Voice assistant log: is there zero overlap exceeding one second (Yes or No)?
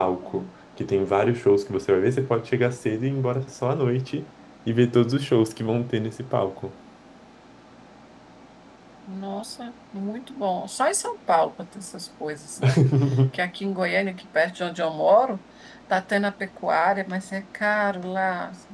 Yes